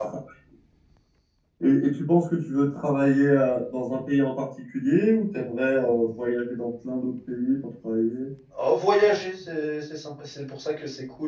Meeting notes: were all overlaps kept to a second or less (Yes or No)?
Yes